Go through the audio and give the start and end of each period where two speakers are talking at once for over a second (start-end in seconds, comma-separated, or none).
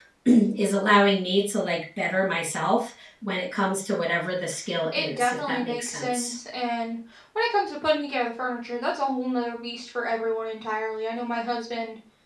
4.9-6.3